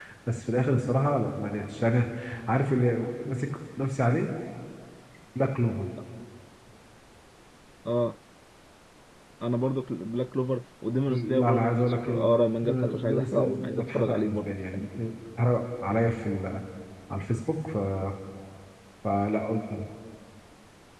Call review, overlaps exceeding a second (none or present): present